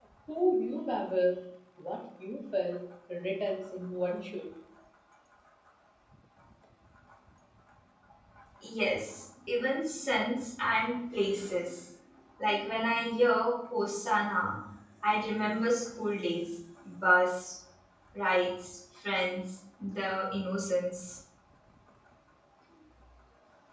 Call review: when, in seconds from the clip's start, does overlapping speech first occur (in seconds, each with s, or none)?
none